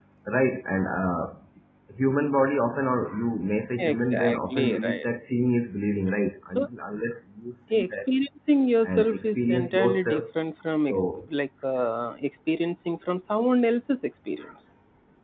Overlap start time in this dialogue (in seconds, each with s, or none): 3.8 s